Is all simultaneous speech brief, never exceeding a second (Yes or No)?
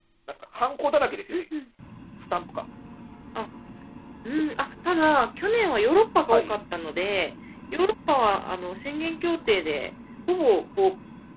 Yes